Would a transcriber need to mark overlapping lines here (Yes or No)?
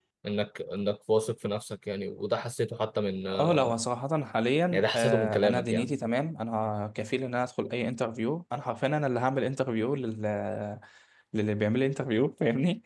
Yes